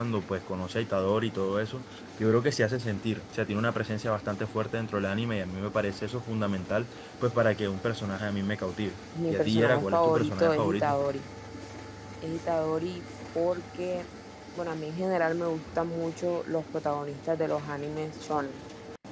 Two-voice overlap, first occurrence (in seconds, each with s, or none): 9.1 s